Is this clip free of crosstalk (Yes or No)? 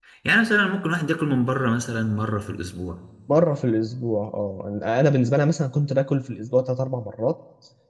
Yes